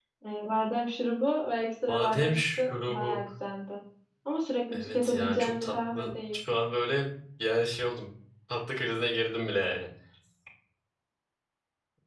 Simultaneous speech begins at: 1.9 s

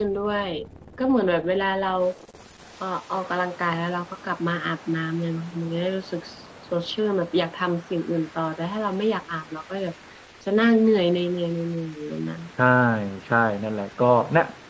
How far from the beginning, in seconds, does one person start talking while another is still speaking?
none

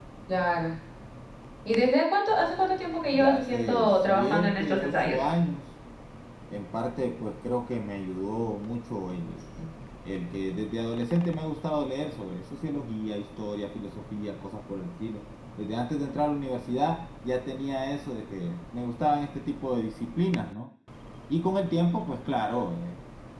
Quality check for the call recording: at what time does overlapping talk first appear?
3.1 s

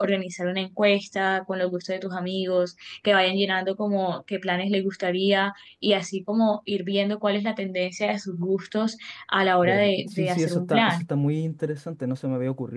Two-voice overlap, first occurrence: 9.6 s

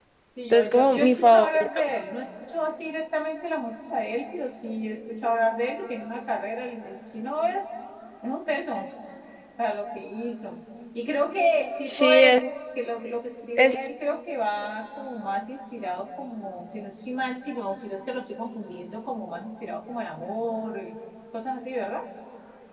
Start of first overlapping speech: 0.5 s

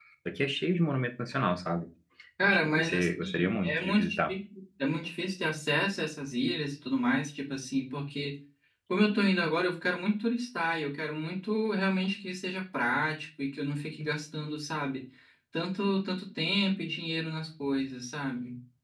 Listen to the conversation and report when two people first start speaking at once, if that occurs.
2.4 s

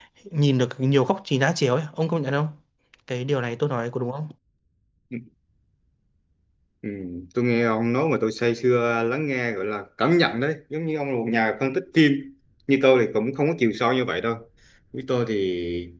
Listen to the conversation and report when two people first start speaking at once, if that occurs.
none

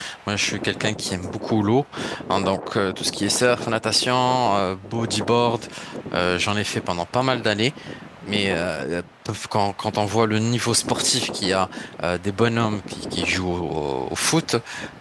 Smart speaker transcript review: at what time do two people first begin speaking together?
none

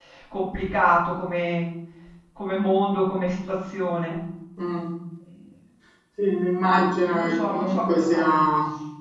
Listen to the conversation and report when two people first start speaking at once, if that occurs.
6.6 s

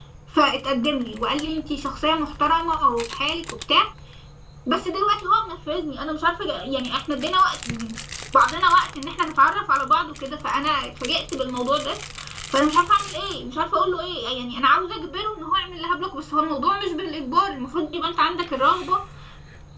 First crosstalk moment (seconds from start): none

